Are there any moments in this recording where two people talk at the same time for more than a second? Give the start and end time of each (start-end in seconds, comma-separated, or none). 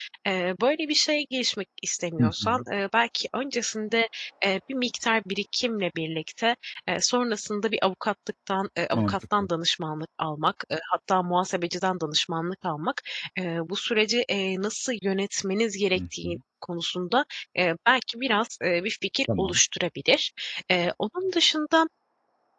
none